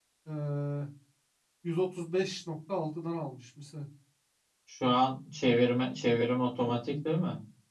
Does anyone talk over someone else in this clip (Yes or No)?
No